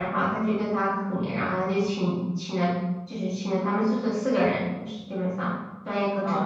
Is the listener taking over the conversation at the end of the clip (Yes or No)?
Yes